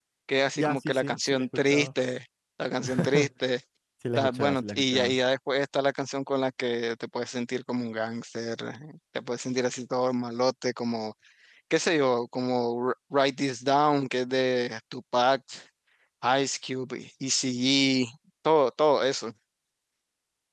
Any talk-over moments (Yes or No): Yes